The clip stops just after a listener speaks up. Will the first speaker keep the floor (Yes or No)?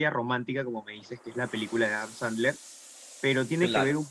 Yes